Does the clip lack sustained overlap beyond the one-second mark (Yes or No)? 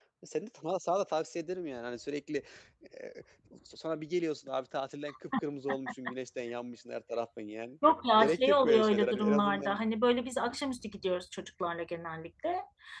No